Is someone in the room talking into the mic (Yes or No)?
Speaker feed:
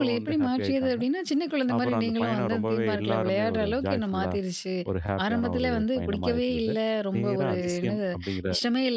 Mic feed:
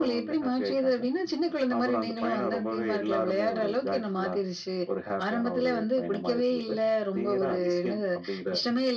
No